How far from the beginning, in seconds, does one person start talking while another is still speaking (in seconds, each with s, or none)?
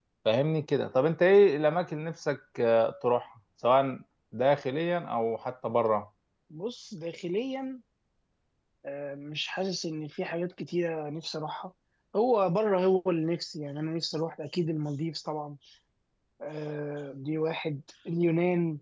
none